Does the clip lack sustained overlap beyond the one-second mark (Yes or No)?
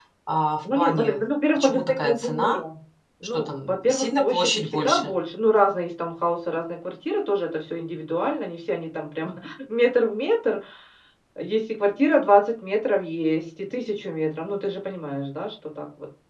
No